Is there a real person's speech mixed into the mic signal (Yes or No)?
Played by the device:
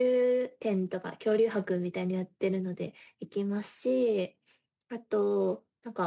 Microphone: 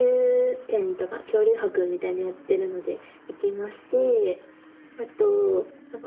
No